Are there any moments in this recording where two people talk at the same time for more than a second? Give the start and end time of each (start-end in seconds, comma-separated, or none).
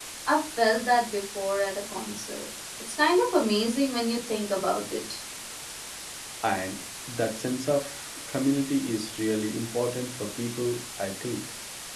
none